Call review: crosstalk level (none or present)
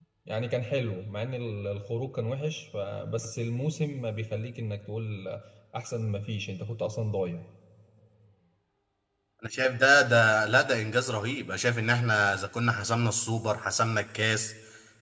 none